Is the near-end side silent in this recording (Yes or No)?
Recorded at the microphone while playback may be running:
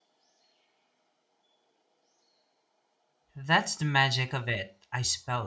No